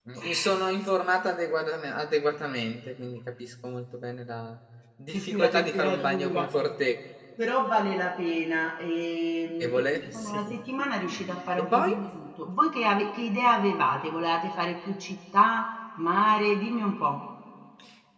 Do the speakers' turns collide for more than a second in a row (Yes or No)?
Yes